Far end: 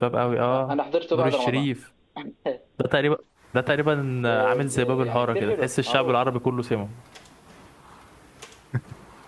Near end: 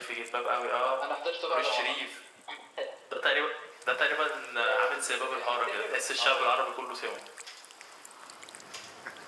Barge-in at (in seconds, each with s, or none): none